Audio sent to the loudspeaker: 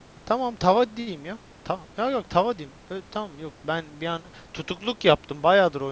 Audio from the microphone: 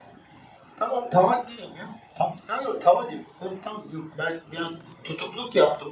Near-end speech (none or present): none